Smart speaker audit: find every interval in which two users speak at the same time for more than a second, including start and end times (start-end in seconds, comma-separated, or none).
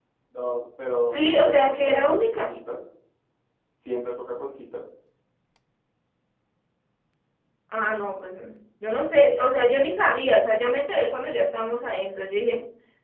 1.1-2.5